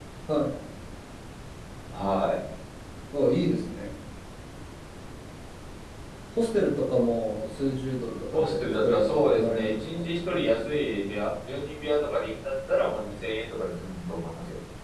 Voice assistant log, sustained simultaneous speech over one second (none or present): present